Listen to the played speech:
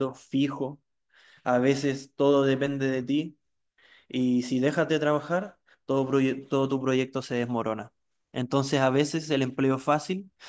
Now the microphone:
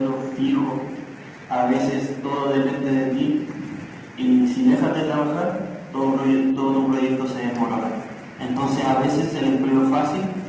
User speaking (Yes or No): No